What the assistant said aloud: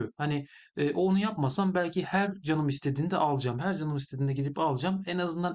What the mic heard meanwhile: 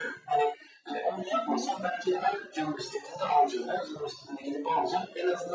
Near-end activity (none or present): present